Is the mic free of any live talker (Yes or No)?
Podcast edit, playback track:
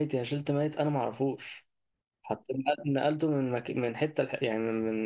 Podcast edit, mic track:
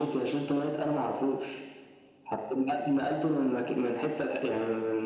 Yes